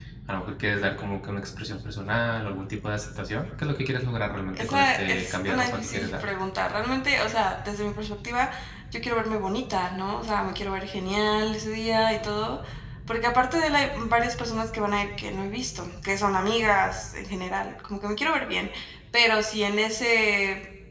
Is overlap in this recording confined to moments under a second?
No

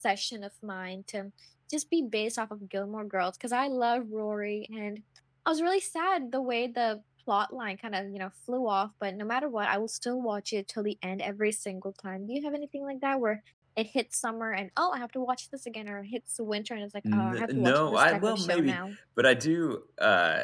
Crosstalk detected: Yes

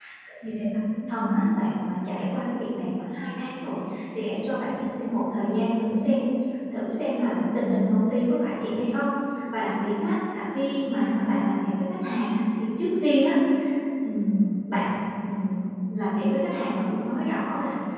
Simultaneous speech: No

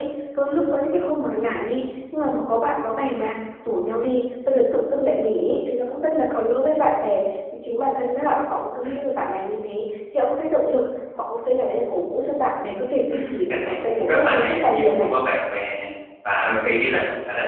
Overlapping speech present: Yes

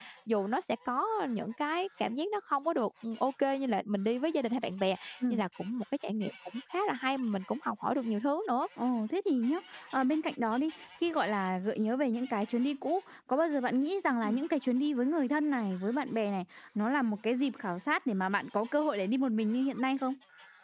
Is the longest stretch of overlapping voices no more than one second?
Yes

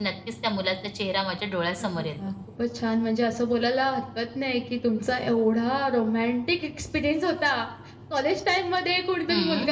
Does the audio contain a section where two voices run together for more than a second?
No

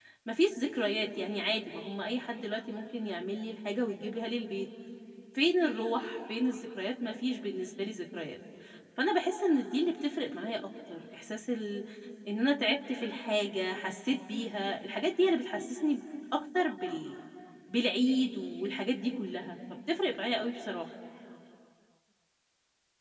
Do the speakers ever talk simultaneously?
No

